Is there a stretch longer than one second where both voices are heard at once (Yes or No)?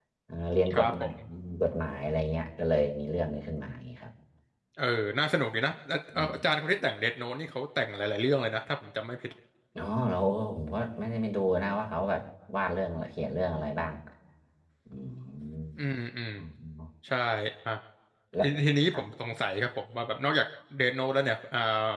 No